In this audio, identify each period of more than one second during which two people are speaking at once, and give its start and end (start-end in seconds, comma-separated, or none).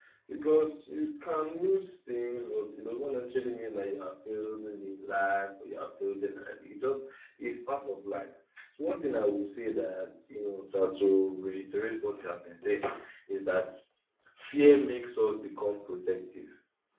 none